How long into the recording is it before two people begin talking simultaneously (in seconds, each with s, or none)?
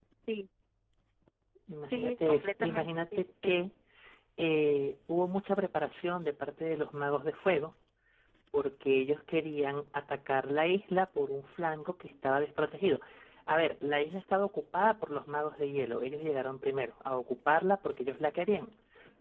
1.9 s